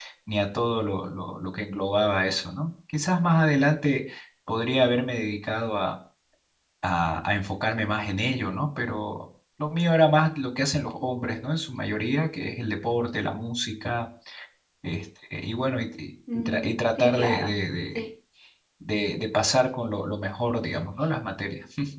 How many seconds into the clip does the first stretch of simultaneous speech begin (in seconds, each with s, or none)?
16.3 s